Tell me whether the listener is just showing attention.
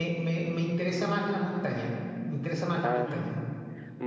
No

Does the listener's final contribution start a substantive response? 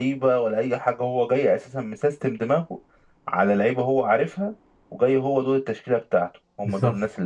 Yes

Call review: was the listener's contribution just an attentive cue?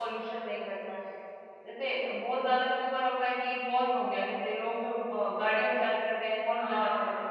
No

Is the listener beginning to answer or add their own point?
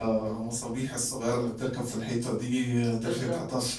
No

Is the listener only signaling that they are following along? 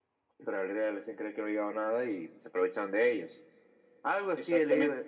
Yes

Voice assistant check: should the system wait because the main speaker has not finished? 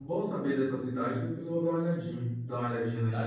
Yes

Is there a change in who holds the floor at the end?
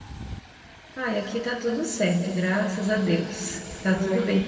No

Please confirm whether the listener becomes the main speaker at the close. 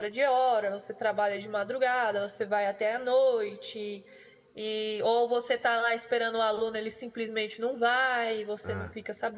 No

